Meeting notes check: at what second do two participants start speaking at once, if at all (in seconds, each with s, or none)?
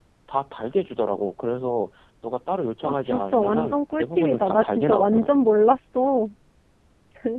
2.8 s